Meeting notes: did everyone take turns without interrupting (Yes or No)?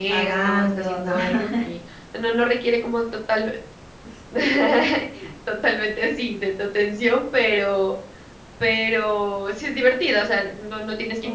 No